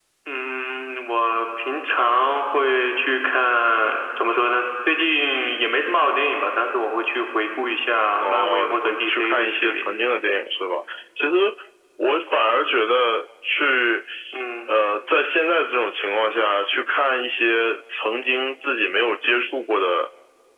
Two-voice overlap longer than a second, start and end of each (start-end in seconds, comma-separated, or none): 8.2-9.8